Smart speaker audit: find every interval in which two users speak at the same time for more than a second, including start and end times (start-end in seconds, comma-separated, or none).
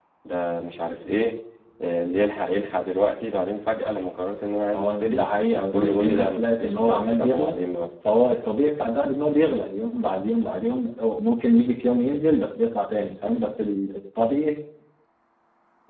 5.7-7.6